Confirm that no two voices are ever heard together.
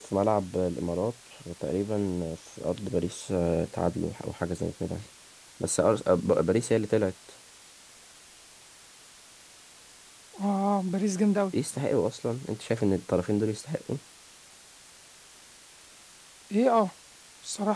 Yes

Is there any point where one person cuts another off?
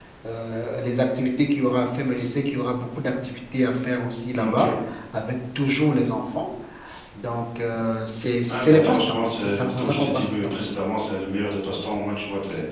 Yes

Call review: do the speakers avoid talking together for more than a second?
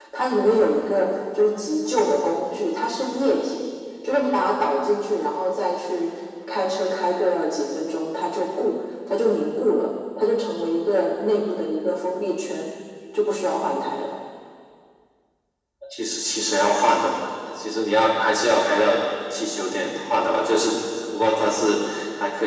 Yes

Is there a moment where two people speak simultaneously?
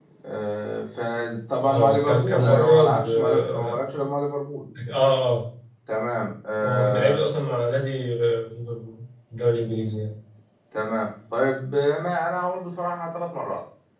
Yes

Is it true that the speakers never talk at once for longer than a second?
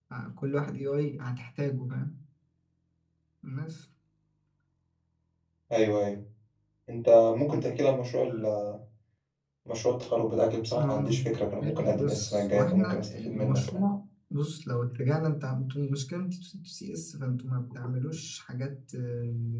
No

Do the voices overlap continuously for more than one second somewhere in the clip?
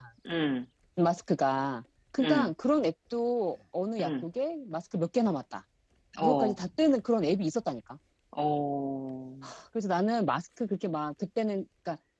No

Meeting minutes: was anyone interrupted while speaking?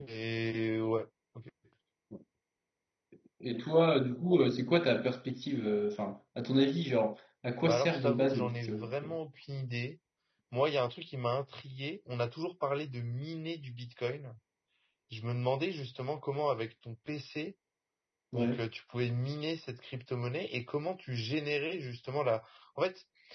Yes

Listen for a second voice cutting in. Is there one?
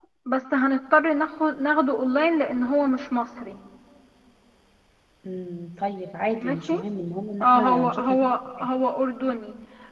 Yes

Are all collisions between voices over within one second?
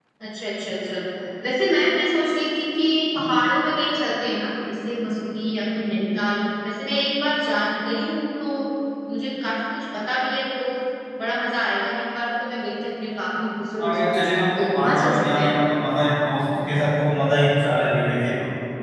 No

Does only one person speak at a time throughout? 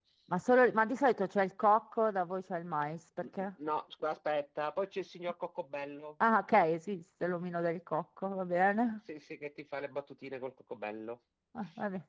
Yes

